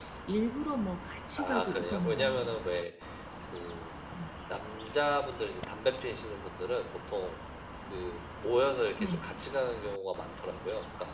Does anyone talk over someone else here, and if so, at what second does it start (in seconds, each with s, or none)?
1.4 s